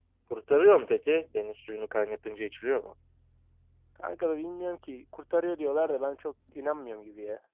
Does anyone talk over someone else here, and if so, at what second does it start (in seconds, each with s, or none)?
none